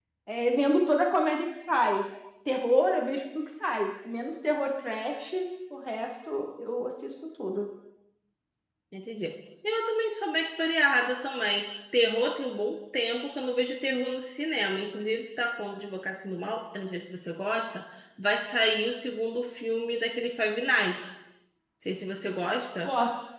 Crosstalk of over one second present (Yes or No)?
No